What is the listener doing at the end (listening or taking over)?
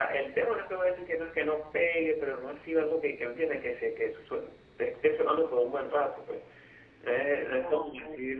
listening